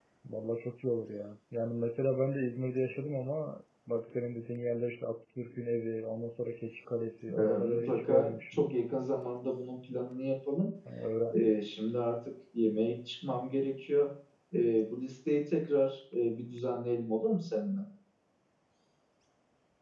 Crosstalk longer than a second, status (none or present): present